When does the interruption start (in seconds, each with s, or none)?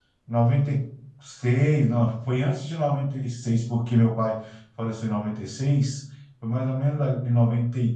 none